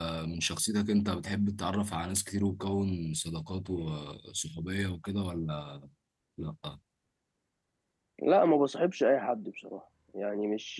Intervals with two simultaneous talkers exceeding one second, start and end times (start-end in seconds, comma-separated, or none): none